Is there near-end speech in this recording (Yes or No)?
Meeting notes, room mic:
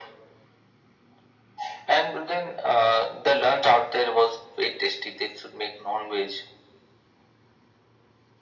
No